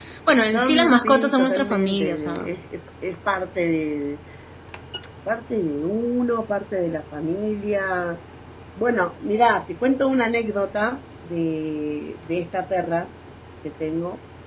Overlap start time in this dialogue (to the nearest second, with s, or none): 1 s